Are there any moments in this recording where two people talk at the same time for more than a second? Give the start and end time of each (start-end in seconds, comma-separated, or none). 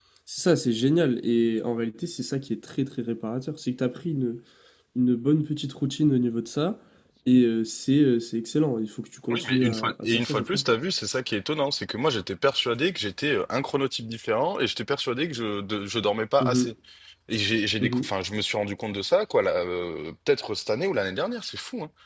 9.3-10.6